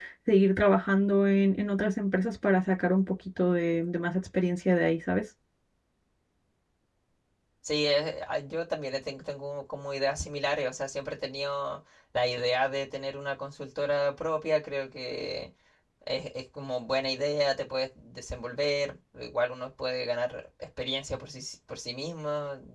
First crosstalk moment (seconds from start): none

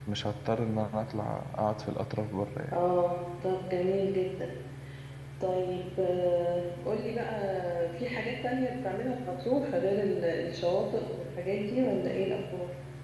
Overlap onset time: none

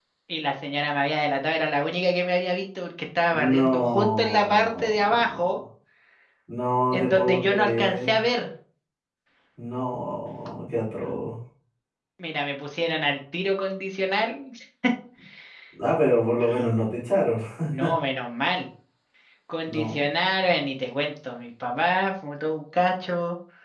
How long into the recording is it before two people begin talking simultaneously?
3.3 s

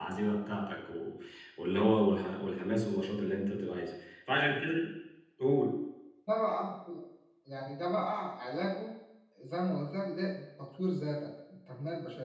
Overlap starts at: none

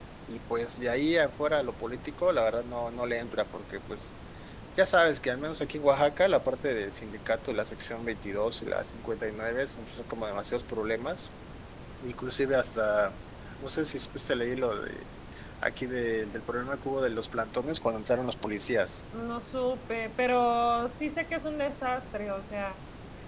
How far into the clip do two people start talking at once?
none

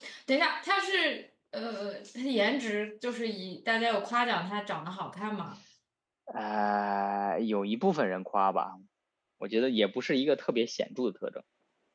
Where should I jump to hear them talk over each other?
none

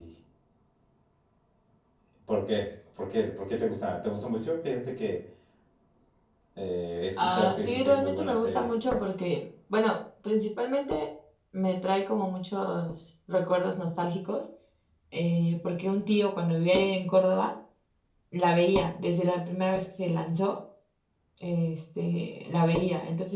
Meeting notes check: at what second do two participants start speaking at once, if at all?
7.2 s

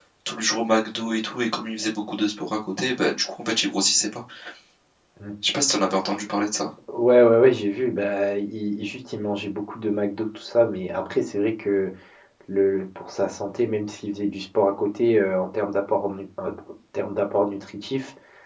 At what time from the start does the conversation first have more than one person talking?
none

